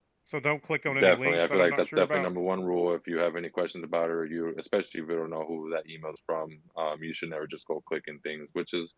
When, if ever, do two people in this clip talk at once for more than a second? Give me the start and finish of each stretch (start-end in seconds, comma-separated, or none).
1.0-2.3